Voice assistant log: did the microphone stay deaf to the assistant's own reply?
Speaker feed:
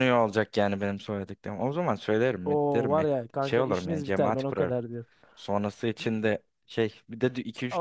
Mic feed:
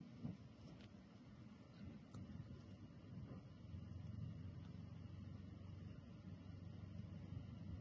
Yes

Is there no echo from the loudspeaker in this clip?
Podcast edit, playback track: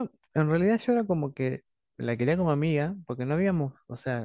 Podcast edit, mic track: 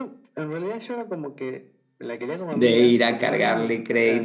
No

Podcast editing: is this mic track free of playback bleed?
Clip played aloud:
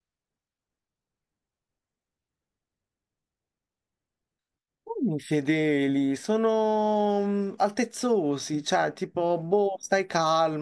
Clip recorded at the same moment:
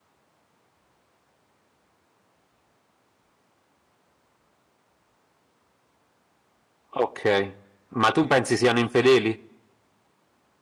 Yes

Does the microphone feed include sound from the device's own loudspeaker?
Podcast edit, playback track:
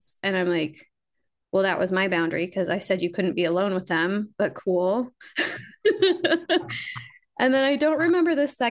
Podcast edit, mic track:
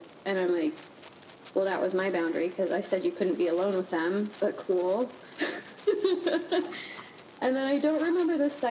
Yes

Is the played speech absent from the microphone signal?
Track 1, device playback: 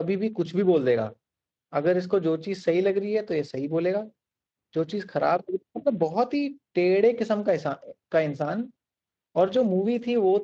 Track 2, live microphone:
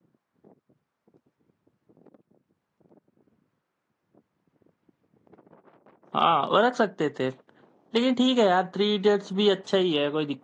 Yes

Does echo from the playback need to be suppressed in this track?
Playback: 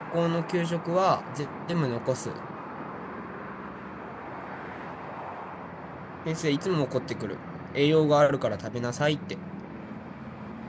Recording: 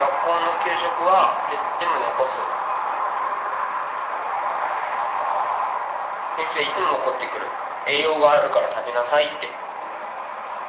Yes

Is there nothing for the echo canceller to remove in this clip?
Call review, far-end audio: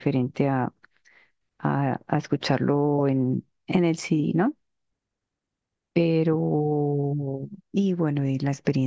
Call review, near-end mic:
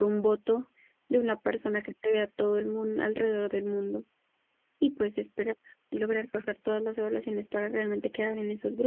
Yes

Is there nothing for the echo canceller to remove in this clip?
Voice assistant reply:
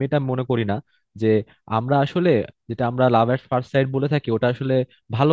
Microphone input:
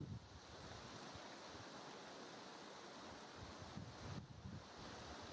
Yes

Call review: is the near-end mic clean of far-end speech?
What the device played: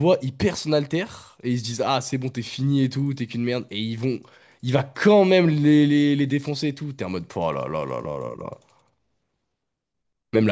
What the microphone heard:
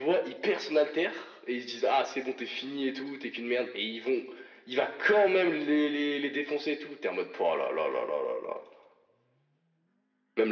No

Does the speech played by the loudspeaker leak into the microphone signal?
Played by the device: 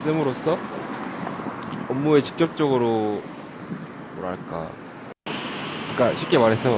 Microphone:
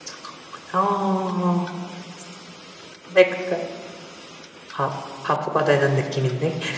No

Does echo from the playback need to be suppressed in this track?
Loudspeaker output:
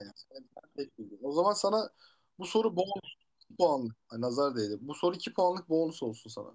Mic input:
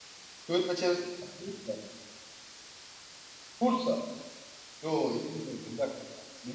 No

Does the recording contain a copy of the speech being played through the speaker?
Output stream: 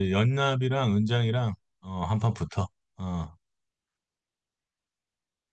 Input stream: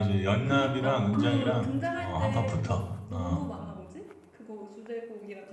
Yes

